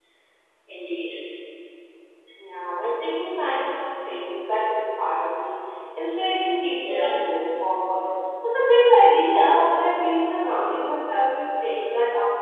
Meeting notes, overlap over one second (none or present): none